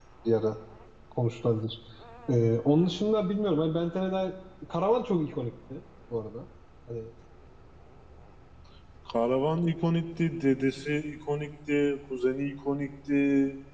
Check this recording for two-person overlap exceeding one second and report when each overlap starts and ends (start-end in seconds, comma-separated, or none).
none